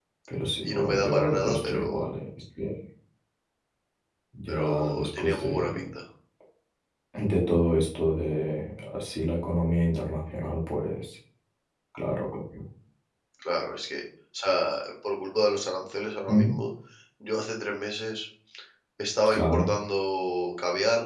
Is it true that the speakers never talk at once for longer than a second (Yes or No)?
No